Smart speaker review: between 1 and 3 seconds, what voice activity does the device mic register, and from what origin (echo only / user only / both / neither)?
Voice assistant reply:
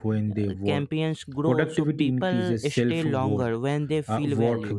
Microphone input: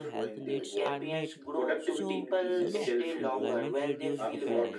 both